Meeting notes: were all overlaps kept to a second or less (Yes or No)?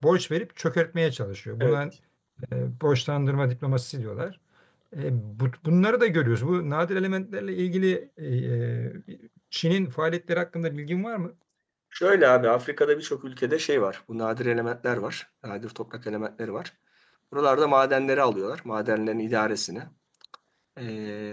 Yes